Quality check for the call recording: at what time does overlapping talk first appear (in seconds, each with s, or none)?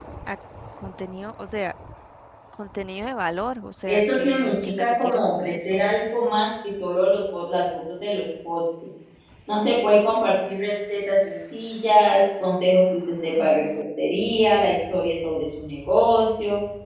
3.9 s